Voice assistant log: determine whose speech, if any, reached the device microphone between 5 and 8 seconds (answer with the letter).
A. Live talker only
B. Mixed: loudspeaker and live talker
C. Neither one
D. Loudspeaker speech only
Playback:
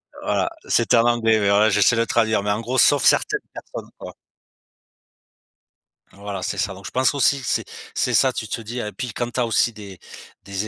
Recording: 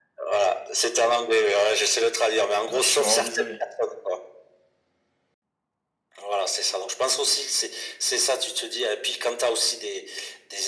D